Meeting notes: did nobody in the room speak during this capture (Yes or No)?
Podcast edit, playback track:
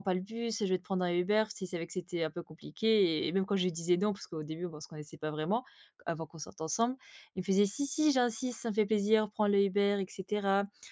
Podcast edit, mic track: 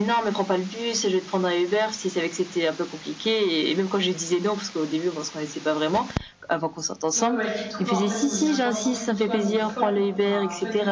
No